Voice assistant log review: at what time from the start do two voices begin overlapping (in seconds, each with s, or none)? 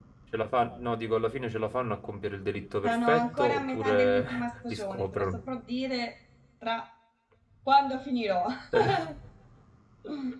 2.8 s